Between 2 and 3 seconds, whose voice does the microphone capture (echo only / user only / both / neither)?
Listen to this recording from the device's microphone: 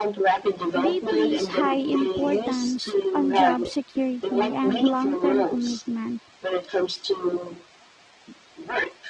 both